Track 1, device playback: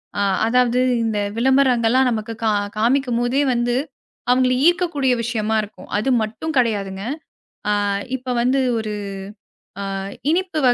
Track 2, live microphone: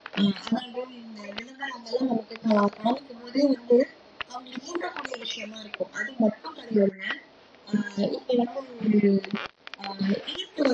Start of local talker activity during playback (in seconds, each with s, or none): none